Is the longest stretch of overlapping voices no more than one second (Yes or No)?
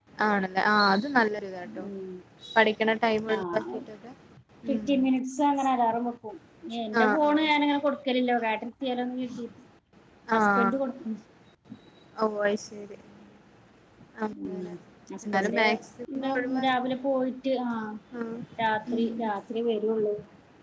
Yes